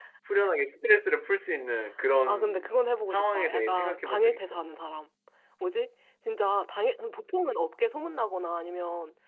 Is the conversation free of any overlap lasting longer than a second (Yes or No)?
No